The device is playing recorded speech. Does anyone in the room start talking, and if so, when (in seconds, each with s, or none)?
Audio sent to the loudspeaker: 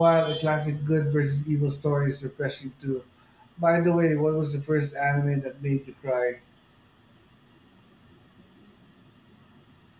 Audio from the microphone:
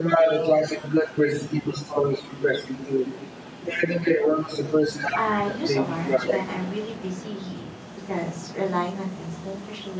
5.1 s